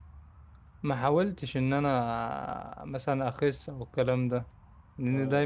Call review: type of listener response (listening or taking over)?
listening